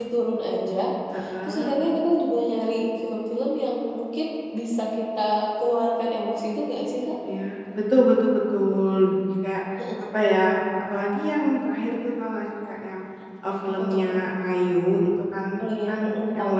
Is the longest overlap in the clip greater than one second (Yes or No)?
No